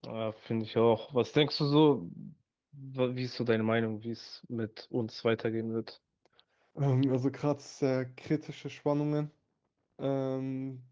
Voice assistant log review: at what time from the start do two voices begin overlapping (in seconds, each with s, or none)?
none